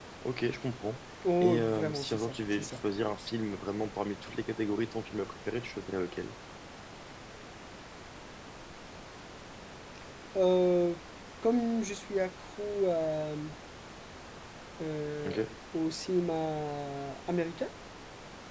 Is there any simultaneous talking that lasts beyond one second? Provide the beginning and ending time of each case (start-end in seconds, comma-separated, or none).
1.4-2.8